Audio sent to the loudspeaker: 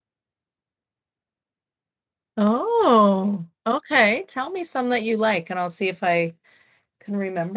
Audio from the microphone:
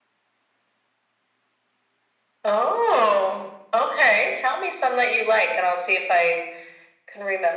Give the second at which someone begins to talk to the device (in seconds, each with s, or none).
none